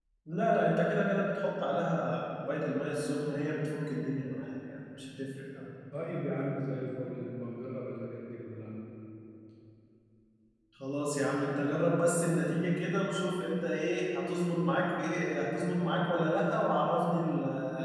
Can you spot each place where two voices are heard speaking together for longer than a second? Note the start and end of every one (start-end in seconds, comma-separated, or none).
none